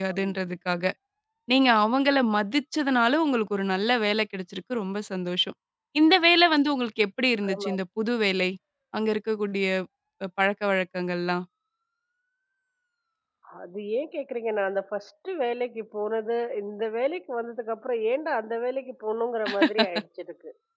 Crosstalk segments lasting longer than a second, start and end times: none

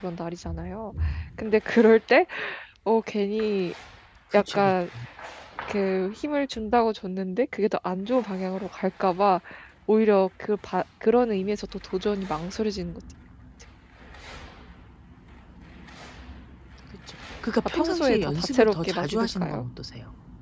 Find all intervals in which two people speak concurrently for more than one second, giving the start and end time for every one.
17.6-19.6

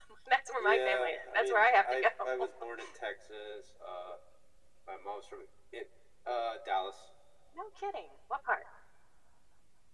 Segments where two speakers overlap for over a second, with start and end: 0.6-2.1

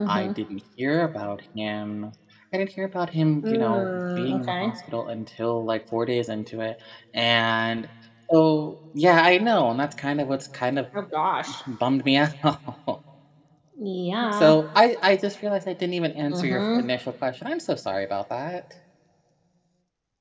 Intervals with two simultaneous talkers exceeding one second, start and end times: 3.4-4.7

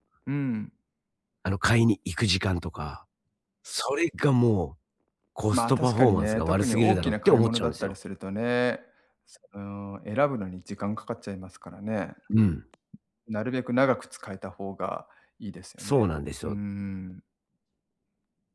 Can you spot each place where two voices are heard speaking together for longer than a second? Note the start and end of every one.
5.5-7.9

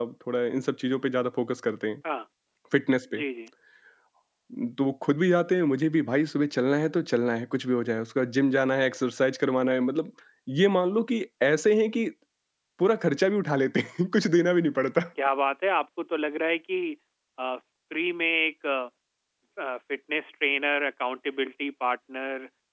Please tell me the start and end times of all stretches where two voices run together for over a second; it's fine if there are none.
none

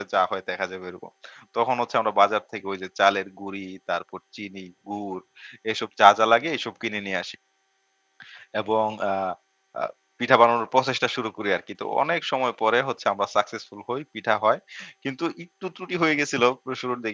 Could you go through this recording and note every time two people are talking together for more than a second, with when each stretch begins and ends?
none

